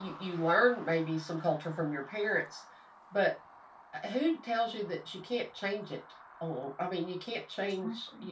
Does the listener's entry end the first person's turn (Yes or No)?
Yes